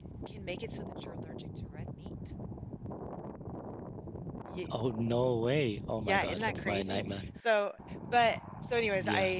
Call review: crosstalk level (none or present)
present